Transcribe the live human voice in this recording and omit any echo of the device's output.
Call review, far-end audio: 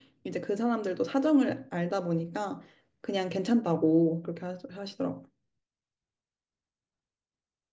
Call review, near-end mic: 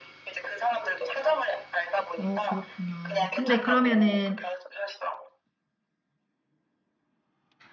어, 그렇군요. 근데 그러면은,

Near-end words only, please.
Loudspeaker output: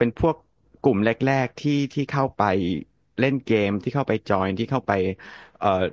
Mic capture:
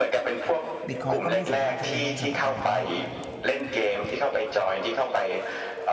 บิตคอยก็ไม่สามารถที่จะล่มสลายได้เพราะว่า

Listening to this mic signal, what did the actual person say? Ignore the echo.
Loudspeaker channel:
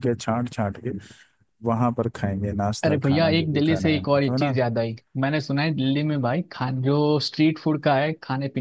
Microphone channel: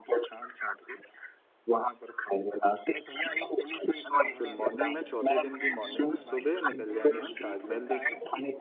है ना फिर मॉर्निंग में चौथे दिन की मॉर्निंग में सुबह निकल जाएंगे हम ताजमहल देखने

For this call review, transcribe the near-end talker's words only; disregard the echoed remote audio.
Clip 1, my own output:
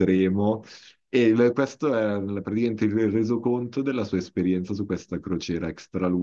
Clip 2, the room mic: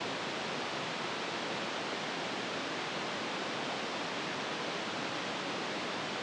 none

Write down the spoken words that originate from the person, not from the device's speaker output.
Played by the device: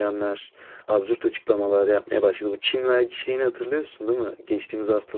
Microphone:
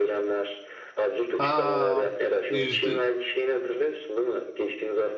Aa yüzde

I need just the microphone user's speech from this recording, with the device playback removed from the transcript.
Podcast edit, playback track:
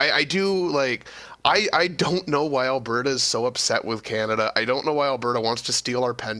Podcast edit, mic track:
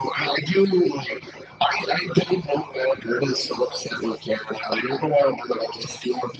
none

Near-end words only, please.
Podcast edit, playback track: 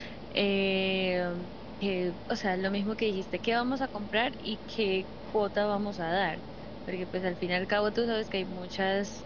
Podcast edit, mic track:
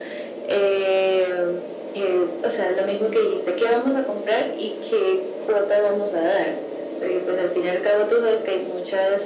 none

